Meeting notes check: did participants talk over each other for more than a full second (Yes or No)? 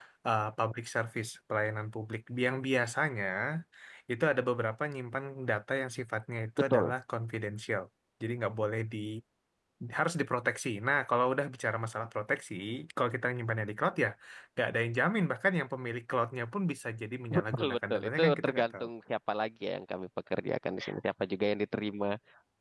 Yes